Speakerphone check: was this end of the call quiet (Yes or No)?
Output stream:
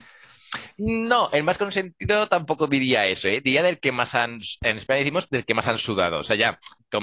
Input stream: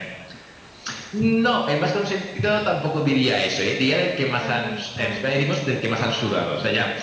No